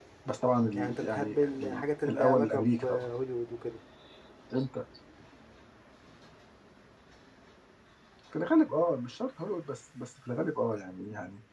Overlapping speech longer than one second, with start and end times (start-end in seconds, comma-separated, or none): 0.7-3.1